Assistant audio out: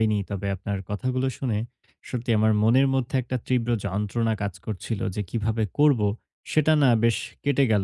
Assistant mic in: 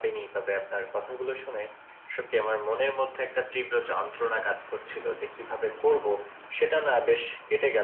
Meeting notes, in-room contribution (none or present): none